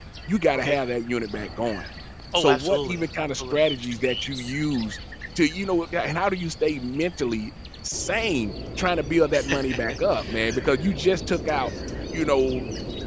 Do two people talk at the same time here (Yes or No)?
Yes